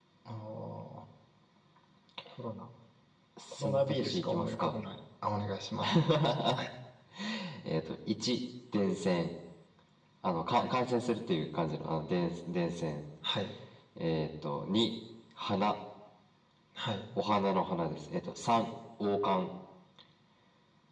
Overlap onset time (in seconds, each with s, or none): 3.5 s